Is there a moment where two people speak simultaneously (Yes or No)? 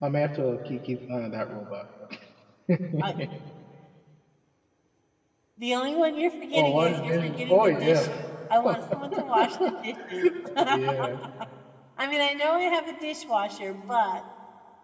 Yes